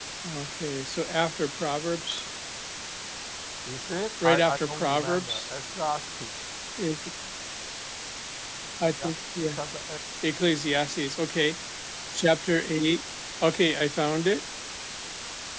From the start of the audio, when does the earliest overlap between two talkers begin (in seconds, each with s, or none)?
4.2 s